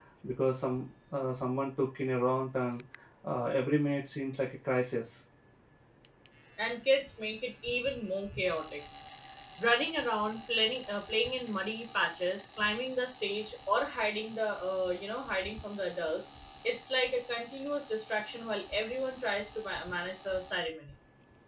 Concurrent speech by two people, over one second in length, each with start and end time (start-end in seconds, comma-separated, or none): none